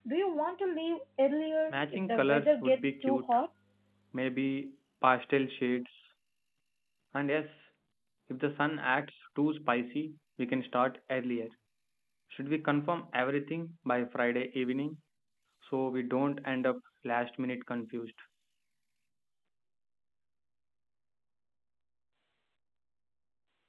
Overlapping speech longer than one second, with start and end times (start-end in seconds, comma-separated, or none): 1.7-3.3